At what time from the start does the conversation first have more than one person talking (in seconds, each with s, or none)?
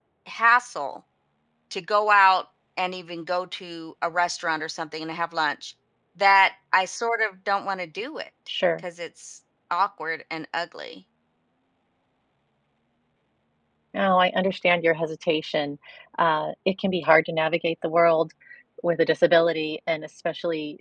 none